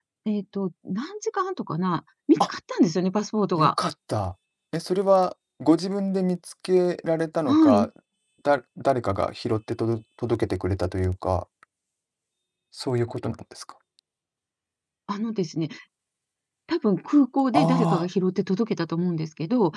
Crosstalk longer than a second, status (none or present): none